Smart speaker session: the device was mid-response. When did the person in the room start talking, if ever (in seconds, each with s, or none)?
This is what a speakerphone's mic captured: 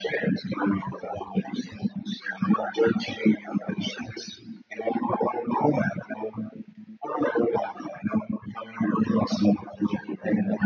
none